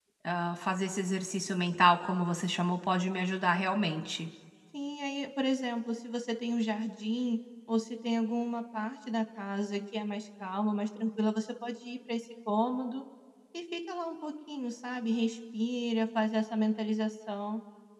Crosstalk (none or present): none